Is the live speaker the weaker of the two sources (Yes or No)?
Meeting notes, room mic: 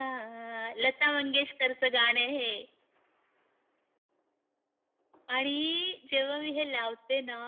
Yes